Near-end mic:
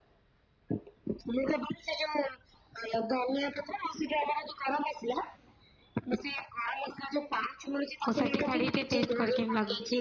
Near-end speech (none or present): present